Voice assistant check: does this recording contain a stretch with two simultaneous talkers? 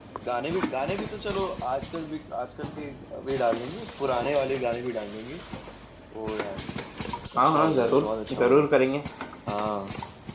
Yes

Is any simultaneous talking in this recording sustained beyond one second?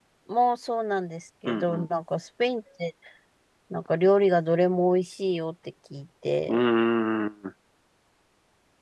No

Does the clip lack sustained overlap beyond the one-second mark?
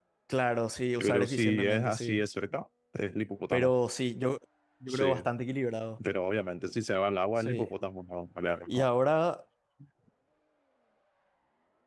No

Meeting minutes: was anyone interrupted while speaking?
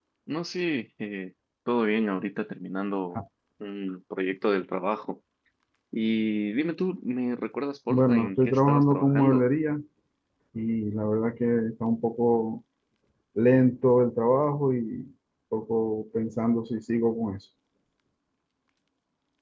Yes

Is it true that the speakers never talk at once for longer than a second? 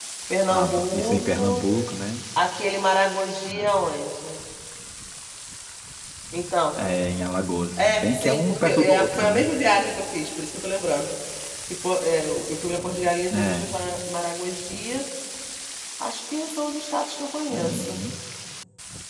No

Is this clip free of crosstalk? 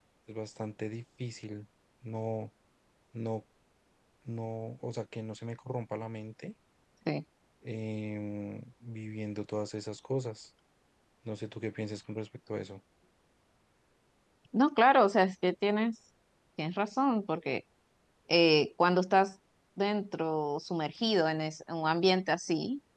Yes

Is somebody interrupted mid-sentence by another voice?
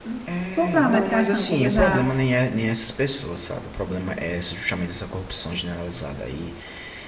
Yes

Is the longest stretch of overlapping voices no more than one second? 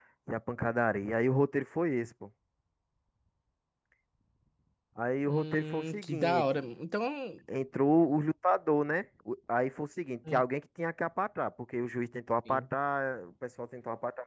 No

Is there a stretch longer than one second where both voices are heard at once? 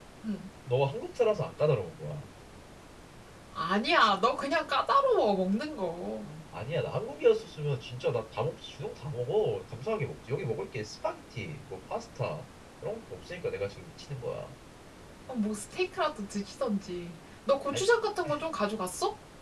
No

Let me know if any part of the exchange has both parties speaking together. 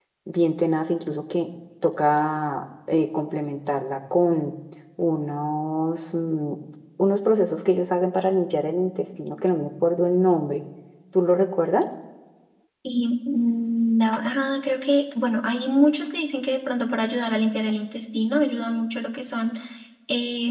No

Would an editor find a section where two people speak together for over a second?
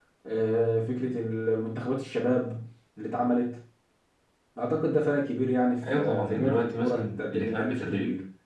Yes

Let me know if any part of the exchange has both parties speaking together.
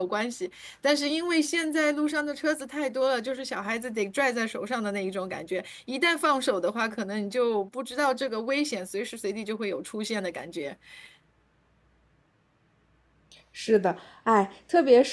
No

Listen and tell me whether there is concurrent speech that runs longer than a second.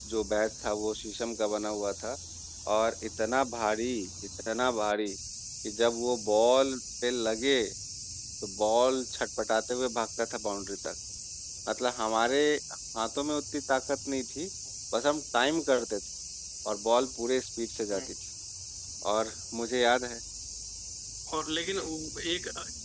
No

